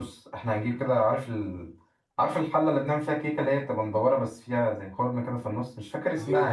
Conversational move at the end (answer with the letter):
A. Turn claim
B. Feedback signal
A